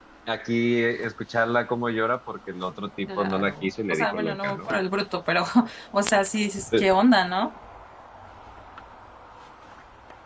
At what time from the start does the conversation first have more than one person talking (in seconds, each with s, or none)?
3.1 s